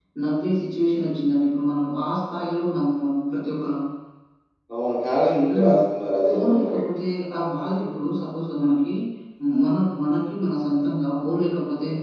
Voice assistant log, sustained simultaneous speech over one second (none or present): none